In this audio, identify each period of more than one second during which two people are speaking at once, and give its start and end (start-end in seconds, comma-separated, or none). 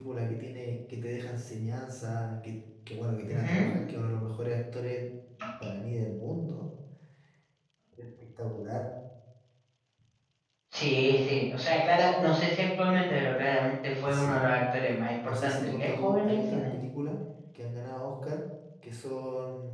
15.2-16.6